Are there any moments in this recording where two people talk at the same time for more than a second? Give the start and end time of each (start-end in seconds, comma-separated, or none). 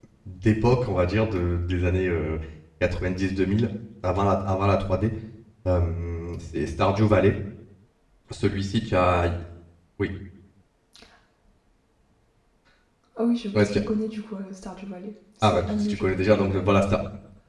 15.4-16.8